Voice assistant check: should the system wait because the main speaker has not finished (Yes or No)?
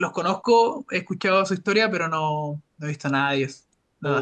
No